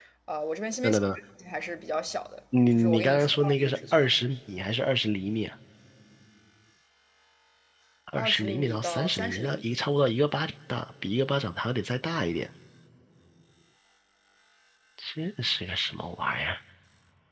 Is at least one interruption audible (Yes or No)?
Yes